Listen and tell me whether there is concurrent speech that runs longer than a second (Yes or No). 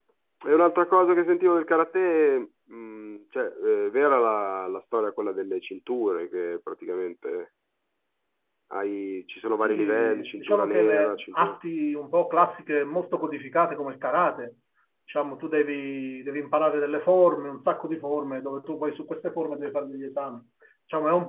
Yes